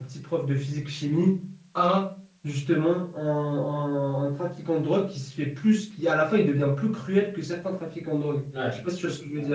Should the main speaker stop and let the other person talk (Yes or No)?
Yes